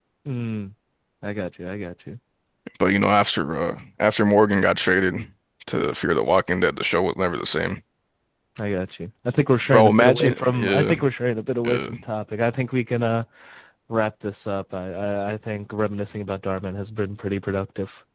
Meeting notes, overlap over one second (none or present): present